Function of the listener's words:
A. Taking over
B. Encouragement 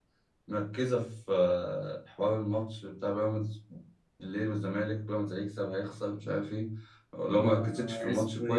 A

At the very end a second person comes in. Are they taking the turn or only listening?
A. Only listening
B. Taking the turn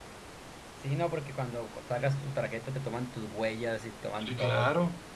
B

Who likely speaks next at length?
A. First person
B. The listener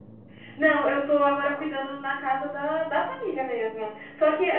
A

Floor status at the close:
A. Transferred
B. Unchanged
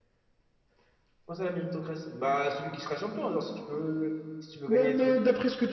A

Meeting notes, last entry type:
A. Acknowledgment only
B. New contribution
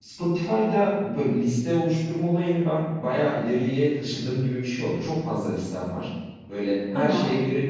A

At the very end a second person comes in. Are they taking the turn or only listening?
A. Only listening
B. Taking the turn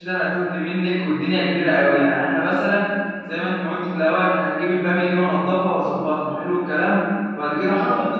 A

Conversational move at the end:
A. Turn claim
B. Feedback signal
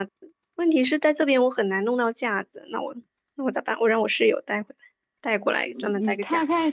A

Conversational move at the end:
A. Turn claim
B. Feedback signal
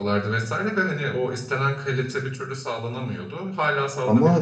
A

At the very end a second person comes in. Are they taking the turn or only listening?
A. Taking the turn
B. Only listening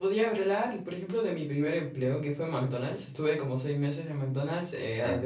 B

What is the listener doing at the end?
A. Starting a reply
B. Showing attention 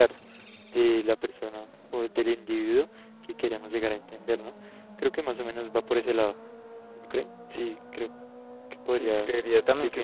A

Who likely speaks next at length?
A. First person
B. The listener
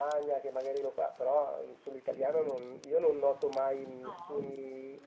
A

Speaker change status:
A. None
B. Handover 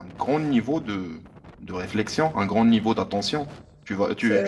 A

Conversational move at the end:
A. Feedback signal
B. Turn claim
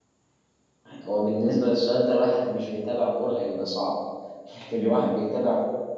A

